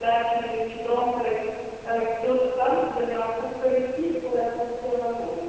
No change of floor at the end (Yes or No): No